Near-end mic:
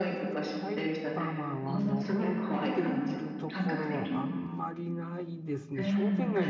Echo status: present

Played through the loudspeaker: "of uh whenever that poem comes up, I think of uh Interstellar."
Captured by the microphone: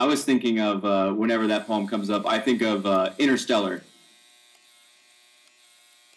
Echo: present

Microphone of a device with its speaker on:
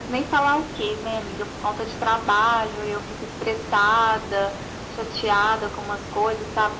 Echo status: present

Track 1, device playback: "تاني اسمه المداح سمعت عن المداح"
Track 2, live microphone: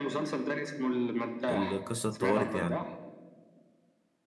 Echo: present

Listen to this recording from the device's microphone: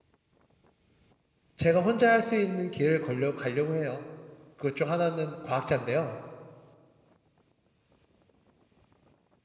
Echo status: none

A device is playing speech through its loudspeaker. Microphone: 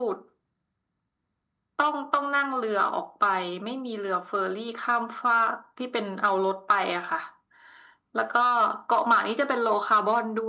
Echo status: present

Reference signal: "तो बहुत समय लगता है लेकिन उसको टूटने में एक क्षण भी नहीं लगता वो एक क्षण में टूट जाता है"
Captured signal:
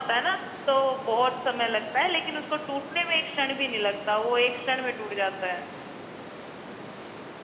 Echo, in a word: present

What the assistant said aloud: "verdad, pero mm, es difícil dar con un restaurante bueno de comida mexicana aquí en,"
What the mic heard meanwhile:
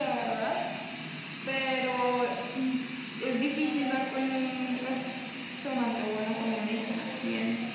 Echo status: present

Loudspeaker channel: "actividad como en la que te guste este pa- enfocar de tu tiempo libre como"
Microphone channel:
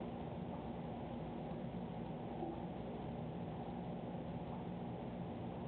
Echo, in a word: none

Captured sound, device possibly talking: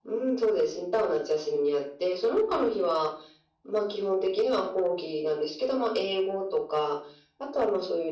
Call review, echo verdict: present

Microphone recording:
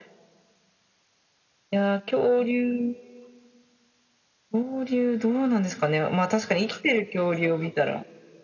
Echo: present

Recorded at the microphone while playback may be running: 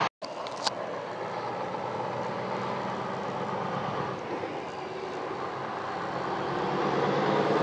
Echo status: none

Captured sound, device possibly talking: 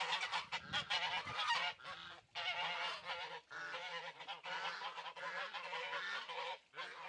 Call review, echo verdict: none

